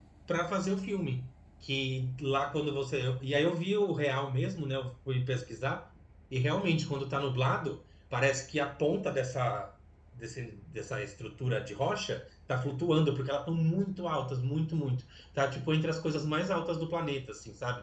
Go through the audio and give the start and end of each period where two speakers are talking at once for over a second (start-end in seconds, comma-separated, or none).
none